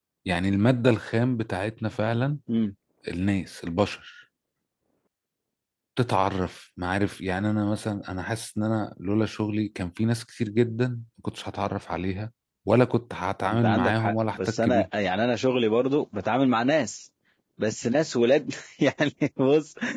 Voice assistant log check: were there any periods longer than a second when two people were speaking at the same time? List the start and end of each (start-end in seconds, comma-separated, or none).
13.5-14.9